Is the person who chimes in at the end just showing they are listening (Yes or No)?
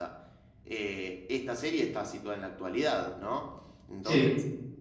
Yes